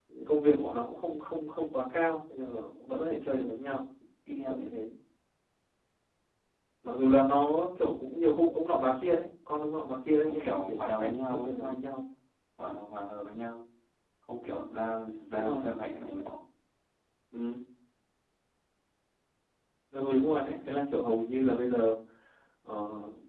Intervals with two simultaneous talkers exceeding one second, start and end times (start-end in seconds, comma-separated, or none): 10.3-11.8